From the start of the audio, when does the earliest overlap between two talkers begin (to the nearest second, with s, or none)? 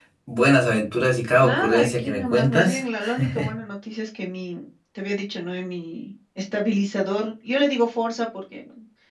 1 s